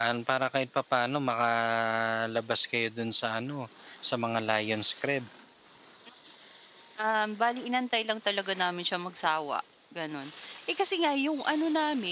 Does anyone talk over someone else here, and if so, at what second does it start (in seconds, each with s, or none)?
none